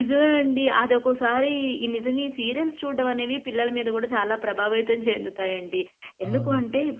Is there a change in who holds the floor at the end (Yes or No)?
No